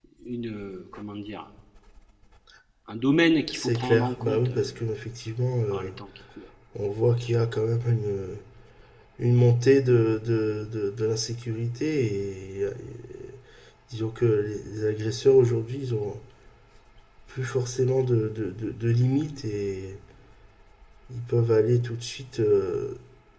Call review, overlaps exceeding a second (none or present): present